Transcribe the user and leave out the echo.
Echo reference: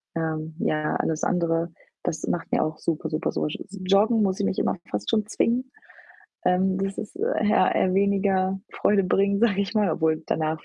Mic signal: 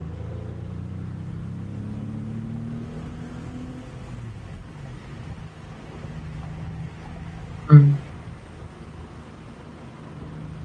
Mhm.

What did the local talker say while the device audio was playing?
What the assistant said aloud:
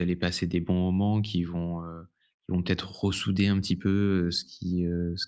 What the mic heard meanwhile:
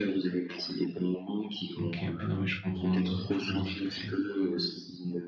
OK, ouais, non, mais je comprends, hein. Je comprends tout à fait.

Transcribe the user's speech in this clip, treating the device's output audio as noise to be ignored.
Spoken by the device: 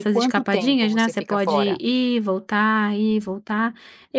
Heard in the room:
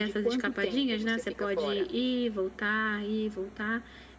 none

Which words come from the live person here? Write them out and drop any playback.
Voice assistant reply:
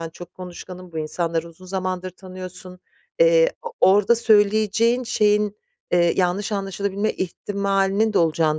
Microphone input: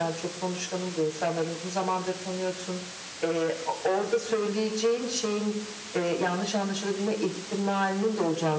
none

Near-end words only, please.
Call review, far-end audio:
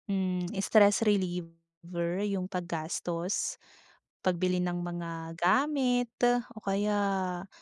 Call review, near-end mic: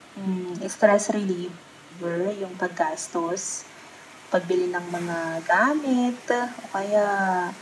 none

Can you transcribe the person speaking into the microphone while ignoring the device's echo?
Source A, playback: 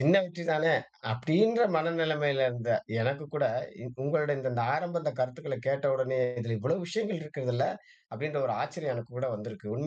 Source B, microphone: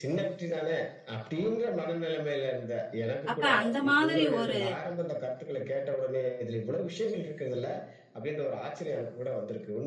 அப்ப, அந்த மாதிரி ஒரு

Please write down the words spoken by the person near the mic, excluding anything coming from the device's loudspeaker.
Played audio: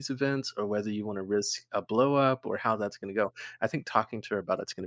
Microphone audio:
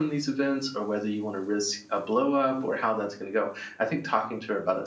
none

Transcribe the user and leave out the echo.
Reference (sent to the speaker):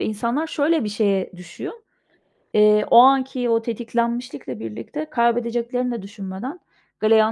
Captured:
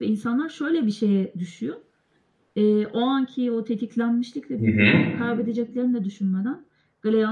Hı hı.

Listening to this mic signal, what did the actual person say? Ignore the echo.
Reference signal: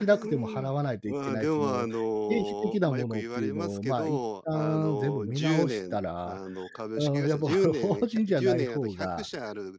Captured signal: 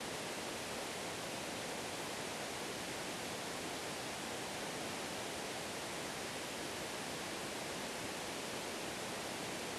none

